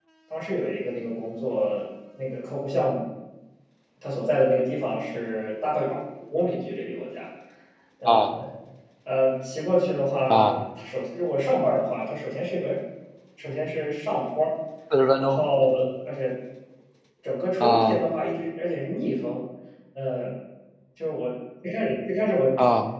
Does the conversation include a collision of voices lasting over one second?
No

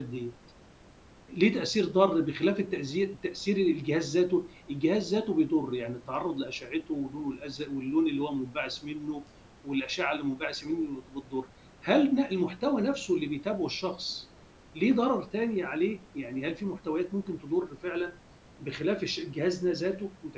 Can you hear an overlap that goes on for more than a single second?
No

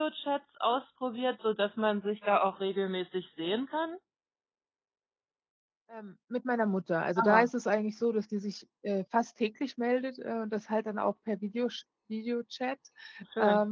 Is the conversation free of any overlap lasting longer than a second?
Yes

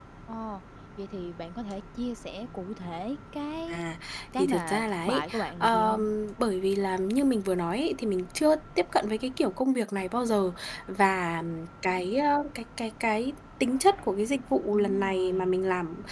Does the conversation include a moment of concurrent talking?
Yes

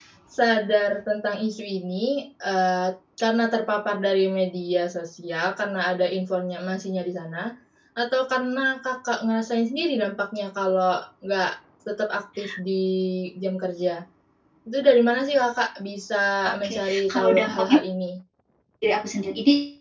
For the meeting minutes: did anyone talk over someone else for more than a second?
Yes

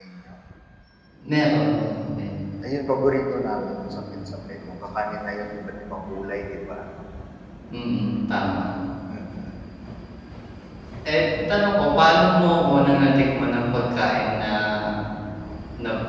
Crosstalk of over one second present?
No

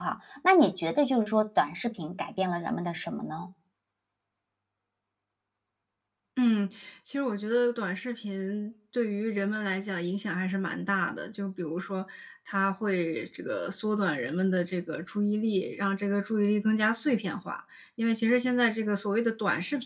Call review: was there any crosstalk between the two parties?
No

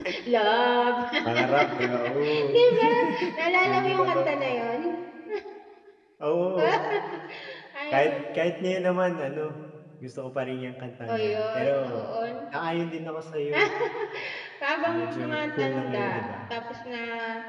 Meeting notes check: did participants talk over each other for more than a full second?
Yes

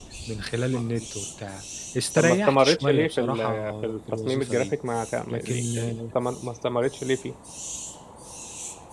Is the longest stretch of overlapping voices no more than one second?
No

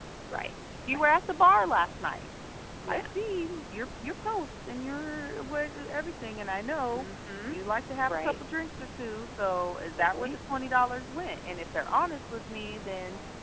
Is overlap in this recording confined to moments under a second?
Yes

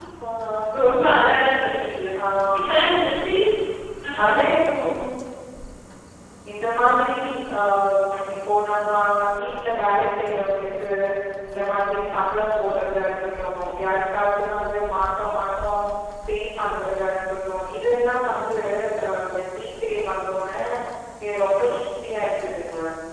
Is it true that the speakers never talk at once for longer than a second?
Yes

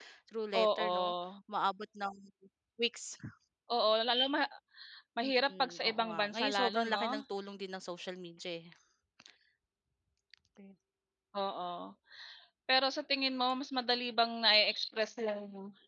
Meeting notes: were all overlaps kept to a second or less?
No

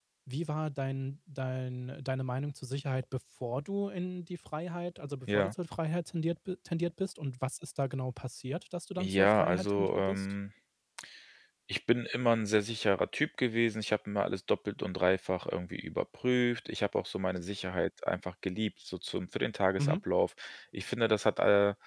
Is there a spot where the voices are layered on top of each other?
Yes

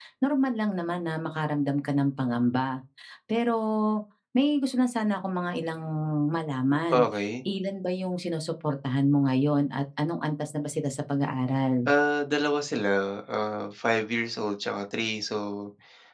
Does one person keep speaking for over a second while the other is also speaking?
No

